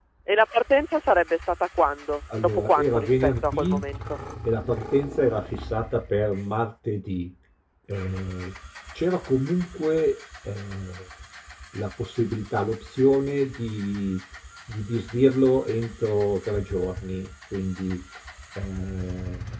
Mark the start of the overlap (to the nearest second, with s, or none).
2 s